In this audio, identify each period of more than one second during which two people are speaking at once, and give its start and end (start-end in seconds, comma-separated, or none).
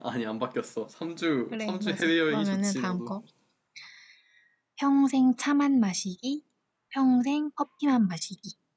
1.5-3.1